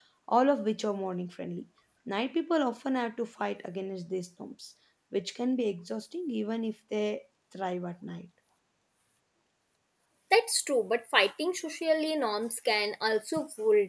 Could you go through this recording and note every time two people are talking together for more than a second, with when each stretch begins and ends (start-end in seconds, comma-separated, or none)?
none